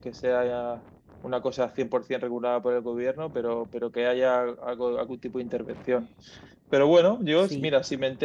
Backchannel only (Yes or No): Yes